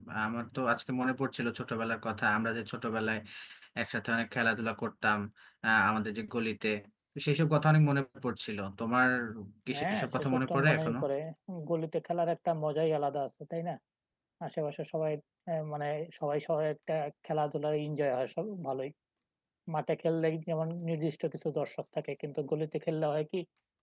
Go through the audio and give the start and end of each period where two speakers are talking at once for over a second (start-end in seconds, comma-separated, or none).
9.7-10.9